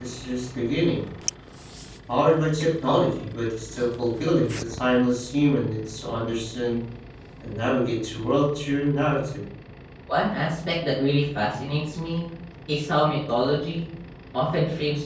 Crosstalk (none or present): none